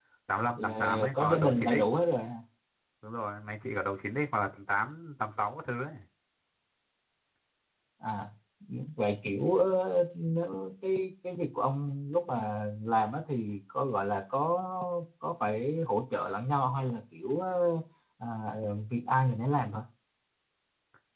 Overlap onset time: 1 s

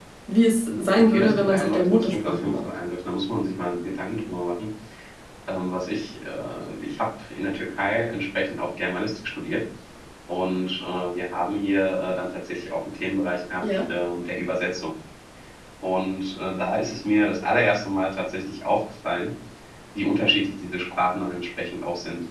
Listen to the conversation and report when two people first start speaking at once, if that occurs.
1 s

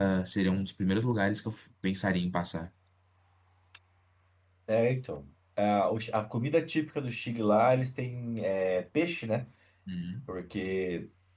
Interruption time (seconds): none

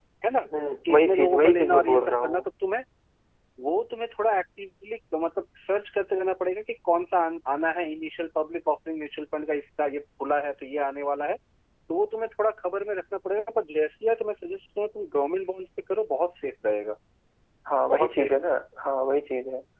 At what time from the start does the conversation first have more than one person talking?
1 s

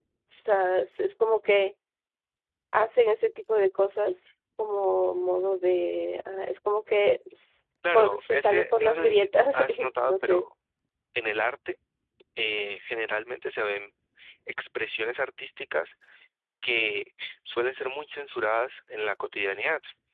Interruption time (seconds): 8 s

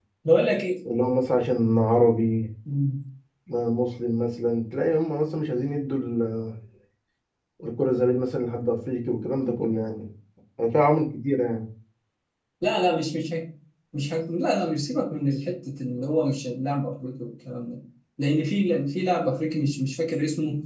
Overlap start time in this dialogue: none

